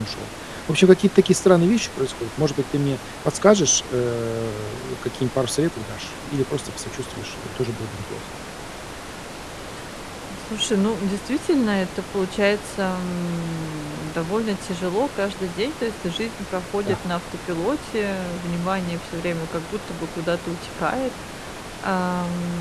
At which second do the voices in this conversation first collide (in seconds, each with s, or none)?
none